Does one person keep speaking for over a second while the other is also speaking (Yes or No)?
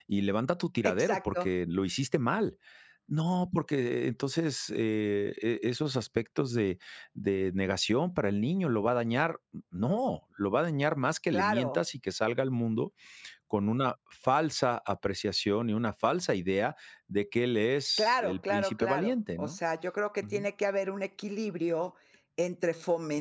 Yes